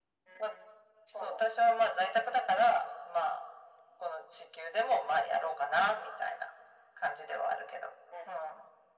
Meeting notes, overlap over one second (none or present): none